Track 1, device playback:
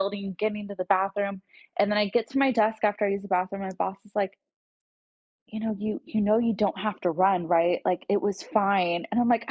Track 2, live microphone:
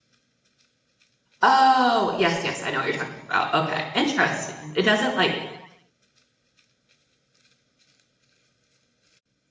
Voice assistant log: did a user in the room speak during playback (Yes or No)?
Yes